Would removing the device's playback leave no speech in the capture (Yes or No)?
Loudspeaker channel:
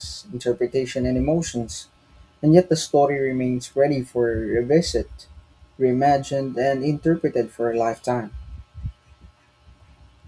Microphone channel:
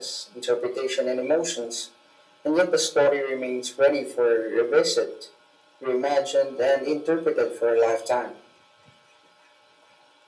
Yes